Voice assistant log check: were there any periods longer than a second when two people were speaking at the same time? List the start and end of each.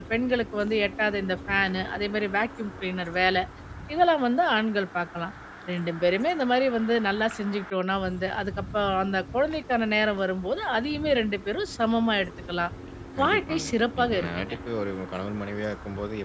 13.2-14.5

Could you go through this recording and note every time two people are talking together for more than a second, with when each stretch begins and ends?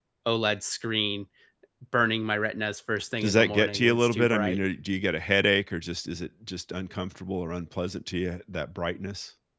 3.2-4.6

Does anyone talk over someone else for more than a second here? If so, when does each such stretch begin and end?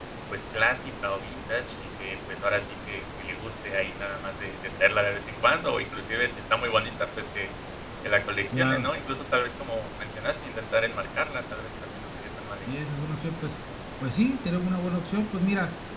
none

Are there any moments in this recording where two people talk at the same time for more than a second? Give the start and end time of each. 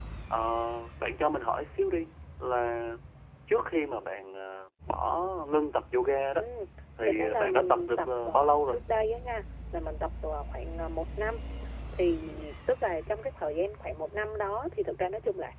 7.0-8.8

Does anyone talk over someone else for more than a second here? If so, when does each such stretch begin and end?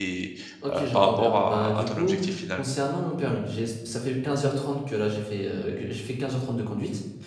0.7-2.2

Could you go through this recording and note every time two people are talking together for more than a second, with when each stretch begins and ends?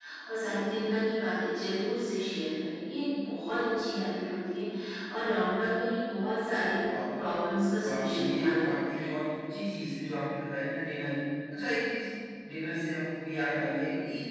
7.8-9.1

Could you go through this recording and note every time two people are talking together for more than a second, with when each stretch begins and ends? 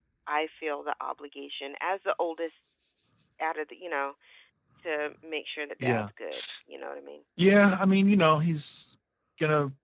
none

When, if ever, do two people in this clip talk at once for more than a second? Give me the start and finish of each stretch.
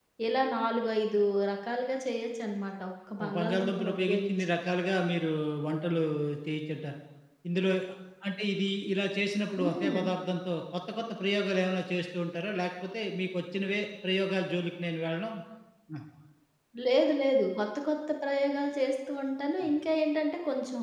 3.2-4.5

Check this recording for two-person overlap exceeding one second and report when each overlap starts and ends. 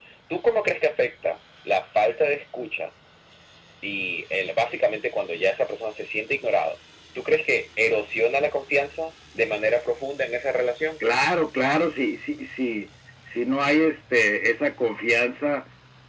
none

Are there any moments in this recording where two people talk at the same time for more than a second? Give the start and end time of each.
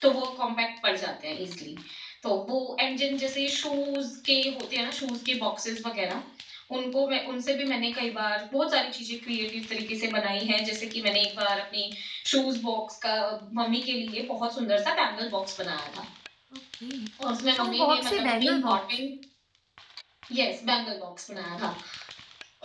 17.6-19.0

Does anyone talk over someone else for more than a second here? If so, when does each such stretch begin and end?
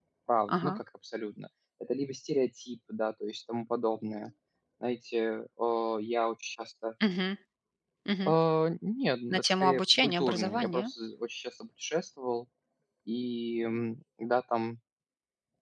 9.3-10.8

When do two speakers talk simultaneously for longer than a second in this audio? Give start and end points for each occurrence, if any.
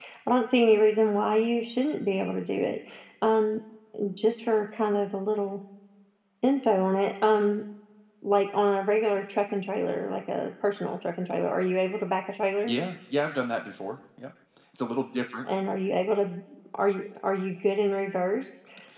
none

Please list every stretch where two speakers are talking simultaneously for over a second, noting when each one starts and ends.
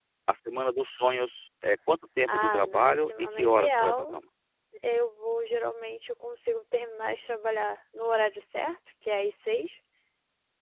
2.2-4.2

